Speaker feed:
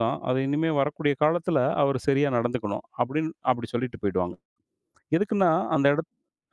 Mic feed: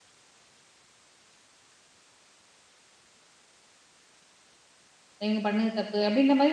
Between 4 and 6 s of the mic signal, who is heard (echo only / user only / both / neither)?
user only